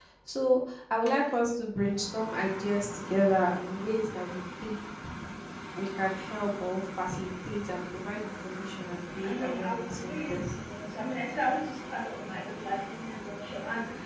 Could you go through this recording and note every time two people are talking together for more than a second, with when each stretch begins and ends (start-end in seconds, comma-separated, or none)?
9.2-10.6